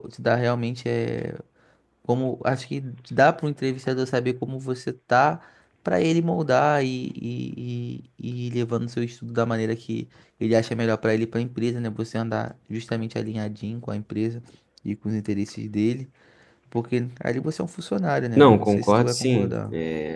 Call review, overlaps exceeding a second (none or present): present